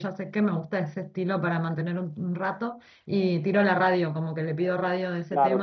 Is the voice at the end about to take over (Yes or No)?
Yes